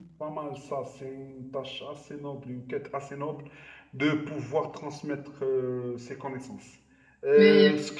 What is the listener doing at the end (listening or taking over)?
listening